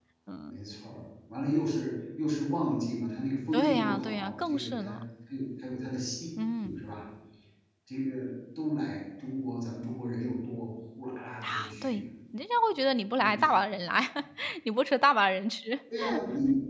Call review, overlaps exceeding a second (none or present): present